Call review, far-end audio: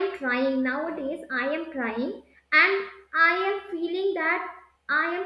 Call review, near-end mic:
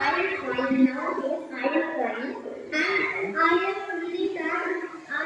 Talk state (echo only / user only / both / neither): both